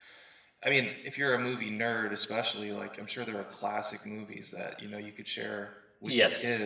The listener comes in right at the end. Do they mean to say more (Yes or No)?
Yes